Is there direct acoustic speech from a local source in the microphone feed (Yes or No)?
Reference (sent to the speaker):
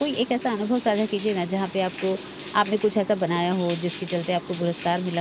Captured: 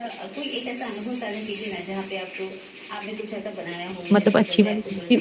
Yes